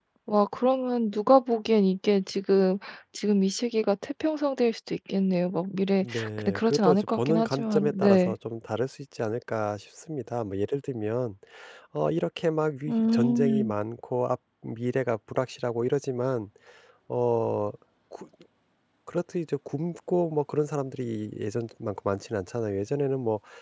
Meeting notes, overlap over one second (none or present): present